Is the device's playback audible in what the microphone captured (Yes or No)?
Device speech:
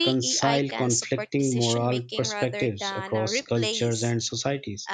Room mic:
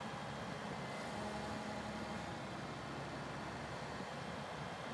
No